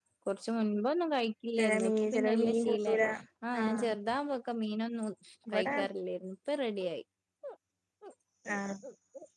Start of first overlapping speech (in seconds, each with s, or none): 1.6 s